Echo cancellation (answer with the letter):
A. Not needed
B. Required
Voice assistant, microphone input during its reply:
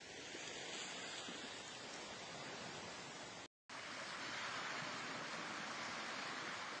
A